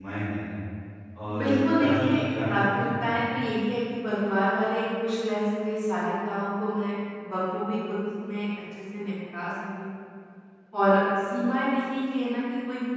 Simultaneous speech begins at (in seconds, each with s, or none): 1.4 s